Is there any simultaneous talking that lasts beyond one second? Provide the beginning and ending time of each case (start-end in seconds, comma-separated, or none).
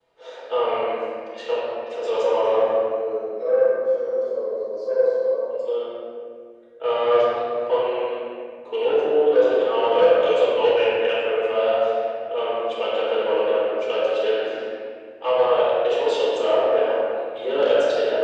none